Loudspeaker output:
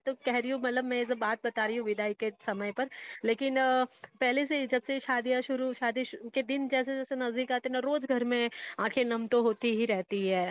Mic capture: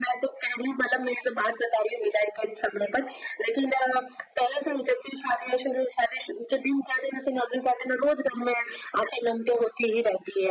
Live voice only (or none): none